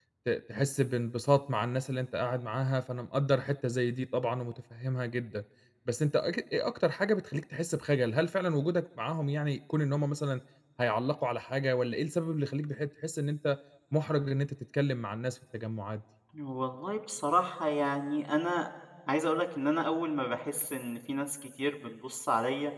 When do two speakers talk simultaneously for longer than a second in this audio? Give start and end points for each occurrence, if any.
none

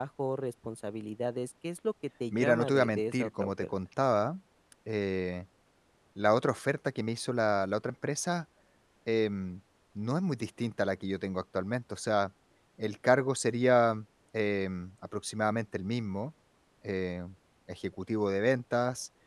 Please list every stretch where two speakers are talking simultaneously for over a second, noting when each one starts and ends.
2.3-3.7

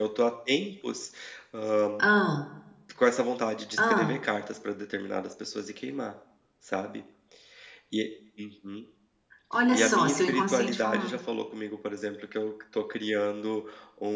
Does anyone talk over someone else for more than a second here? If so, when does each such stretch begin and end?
9.7-11.2

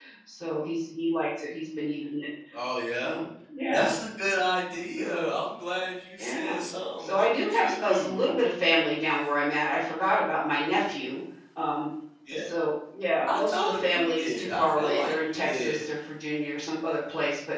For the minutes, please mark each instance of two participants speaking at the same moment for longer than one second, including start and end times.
7.0-8.3, 13.2-15.9

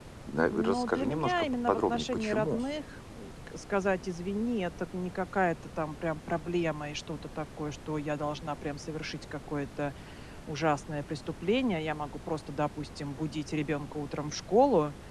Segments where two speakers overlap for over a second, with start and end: 0.5-2.6

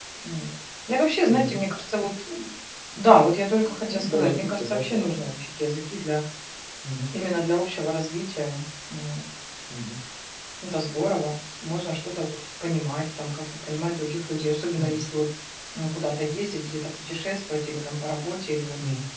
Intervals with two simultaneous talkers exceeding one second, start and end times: 3.9-5.3

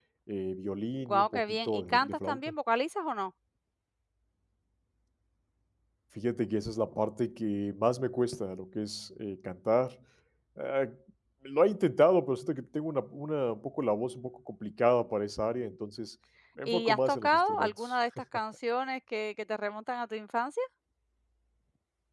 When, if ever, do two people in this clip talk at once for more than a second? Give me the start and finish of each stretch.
1.1-2.4, 16.6-18.0

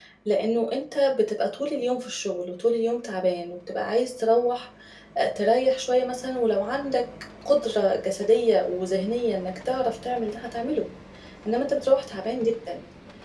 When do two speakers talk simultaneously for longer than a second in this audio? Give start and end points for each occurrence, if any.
none

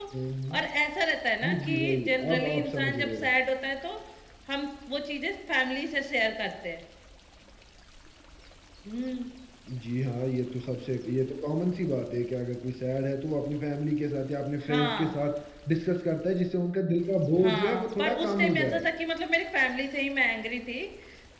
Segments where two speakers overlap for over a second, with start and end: 1.4-3.3, 17.4-18.8

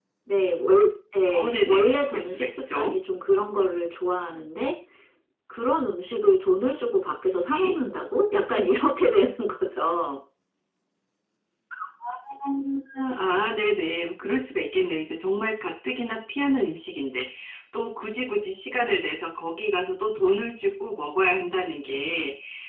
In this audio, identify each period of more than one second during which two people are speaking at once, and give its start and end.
1.4-2.9

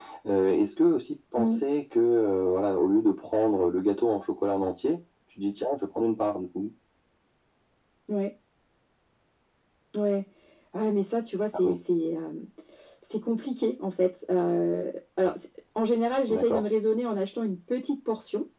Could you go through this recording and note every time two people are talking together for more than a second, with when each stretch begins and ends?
none

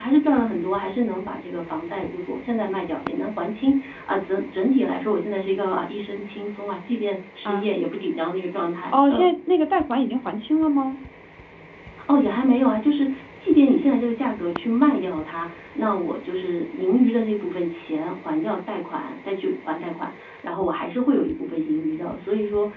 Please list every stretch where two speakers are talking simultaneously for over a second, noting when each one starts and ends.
none

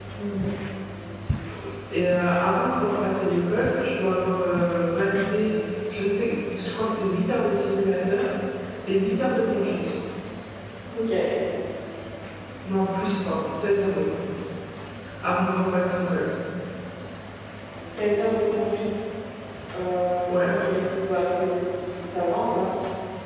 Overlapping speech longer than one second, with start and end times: none

